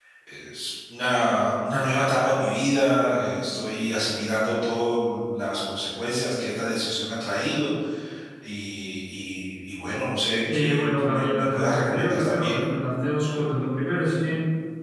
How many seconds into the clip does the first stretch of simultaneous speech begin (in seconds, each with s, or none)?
10.5 s